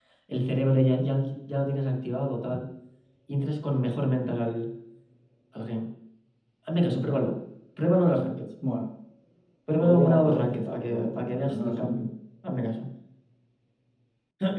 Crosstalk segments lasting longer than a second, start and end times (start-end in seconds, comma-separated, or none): 9.8-12.1